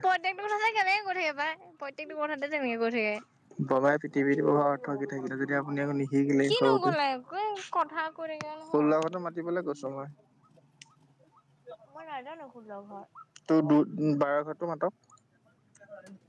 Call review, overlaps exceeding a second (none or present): none